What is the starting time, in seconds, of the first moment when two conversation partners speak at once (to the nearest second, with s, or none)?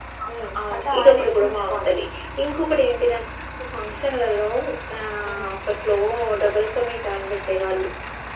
1 s